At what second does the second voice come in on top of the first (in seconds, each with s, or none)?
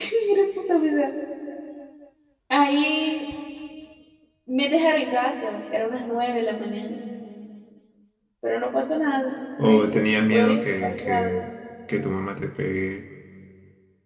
9.6 s